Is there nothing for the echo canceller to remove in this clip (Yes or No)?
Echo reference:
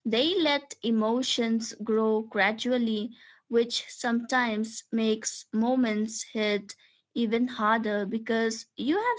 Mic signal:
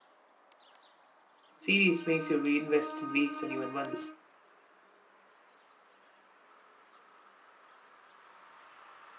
Yes